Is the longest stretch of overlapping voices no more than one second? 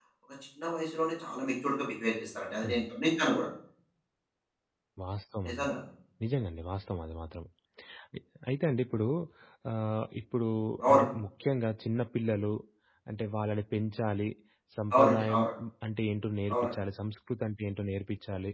Yes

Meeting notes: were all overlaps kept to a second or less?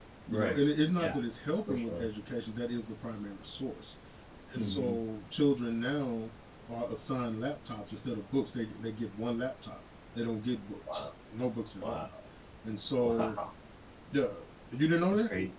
Yes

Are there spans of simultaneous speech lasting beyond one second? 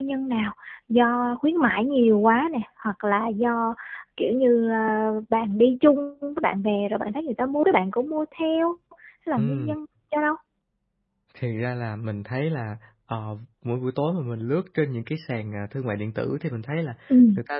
No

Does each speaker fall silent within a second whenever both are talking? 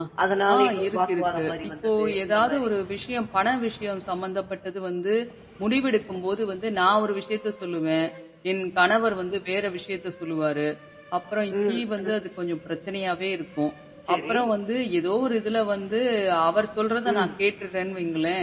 No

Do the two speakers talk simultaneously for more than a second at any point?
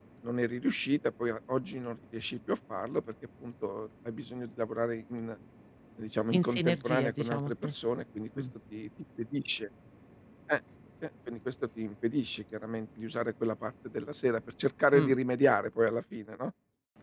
Yes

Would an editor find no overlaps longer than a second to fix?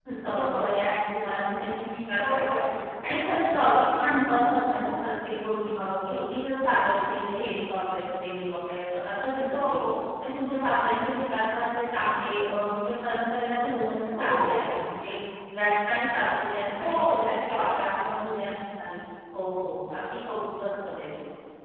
No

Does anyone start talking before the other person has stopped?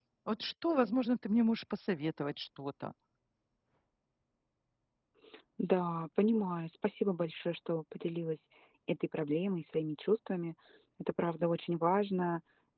No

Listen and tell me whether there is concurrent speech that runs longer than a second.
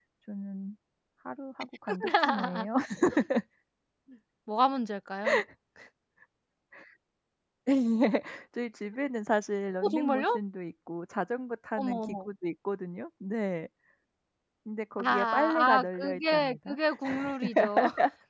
Yes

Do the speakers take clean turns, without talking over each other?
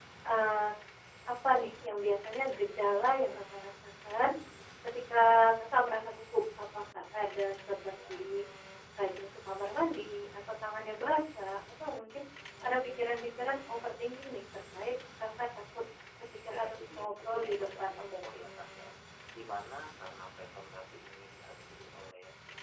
No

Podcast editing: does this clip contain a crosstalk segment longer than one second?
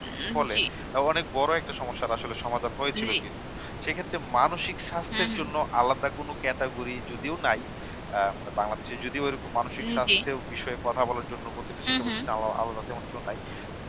No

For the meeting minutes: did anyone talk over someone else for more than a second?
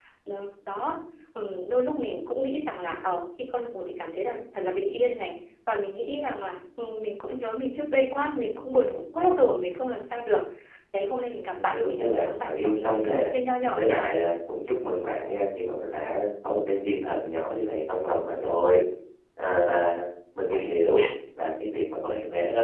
Yes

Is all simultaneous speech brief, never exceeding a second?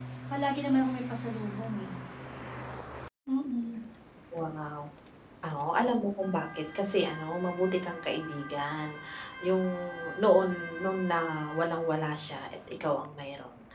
Yes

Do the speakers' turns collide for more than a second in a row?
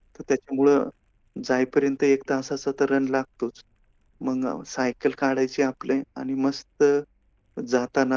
No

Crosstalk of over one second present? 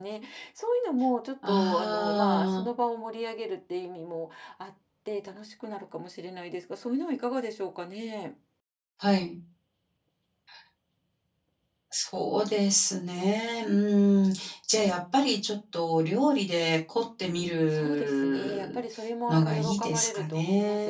Yes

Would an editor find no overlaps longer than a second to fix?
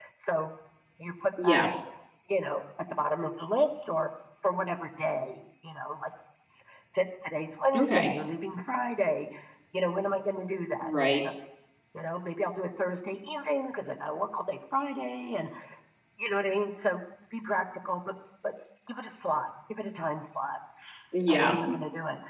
Yes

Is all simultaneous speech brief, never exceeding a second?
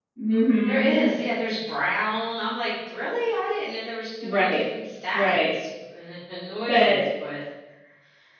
Yes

